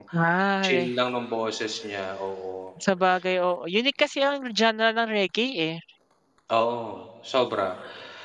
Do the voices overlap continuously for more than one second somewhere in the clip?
No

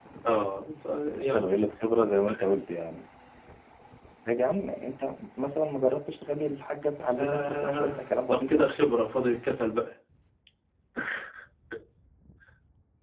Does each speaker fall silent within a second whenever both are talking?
No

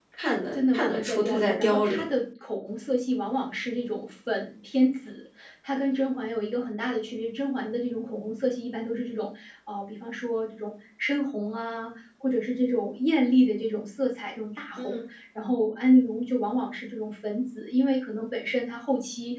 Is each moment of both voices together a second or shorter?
No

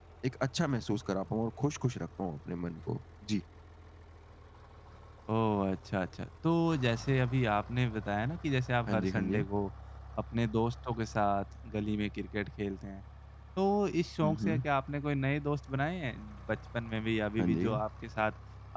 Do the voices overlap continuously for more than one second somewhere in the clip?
No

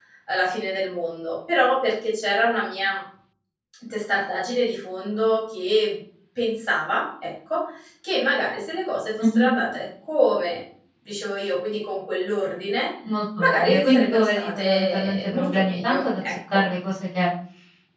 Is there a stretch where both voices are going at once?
Yes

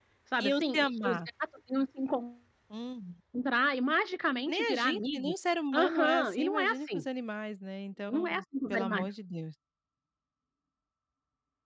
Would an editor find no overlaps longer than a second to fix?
No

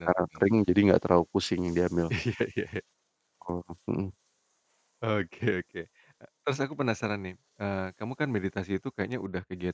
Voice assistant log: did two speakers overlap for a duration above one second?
No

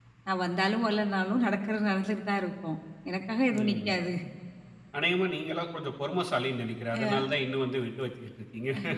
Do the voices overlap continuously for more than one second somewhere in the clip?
No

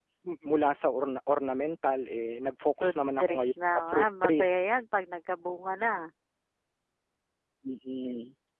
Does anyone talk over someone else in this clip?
Yes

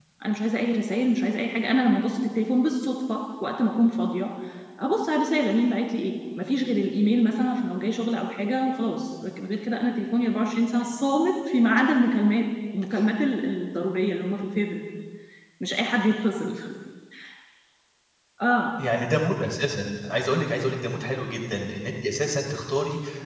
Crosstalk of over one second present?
No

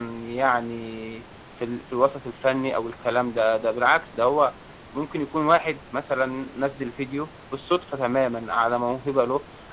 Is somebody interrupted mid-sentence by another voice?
No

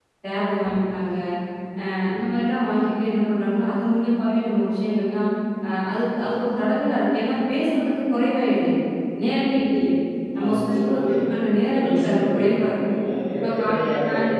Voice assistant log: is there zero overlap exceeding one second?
No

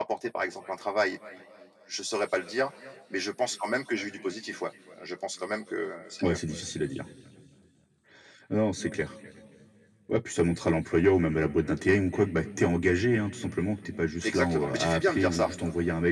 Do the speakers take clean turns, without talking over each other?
No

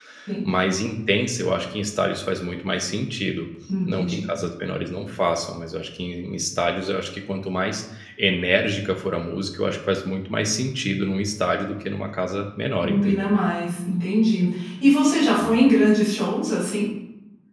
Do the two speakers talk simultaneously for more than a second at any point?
No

